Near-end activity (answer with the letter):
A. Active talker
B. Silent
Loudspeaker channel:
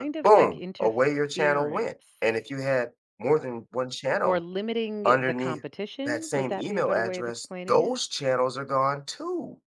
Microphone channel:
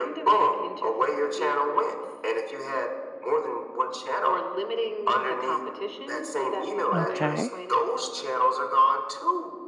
A